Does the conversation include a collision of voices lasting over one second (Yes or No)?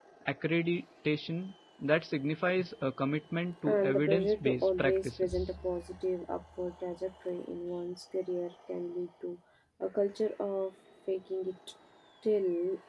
Yes